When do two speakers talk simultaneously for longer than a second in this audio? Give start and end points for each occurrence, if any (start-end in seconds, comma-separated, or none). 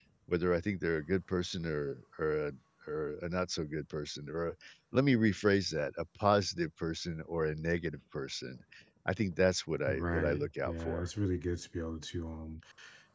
9.9-11.1